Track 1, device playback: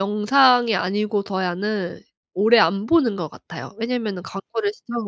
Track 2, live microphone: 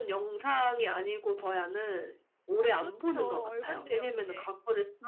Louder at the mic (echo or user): echo